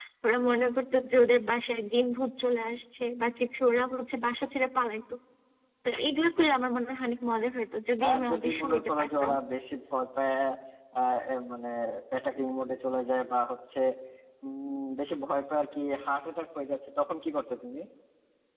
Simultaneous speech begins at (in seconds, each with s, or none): 8.0 s